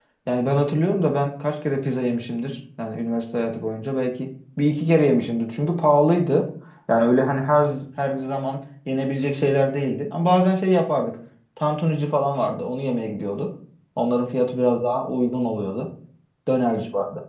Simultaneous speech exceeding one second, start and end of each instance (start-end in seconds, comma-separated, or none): none